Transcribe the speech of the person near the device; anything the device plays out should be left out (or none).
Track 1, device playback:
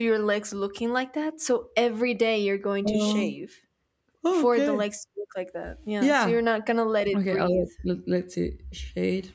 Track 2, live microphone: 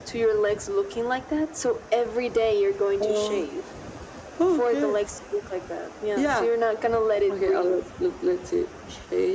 none